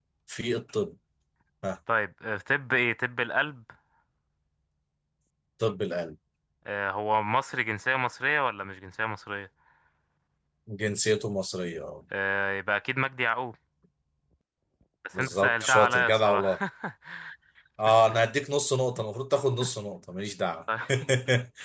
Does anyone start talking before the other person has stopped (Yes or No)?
Yes